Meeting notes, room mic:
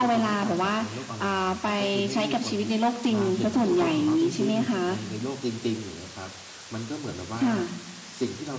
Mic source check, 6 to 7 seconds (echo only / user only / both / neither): user only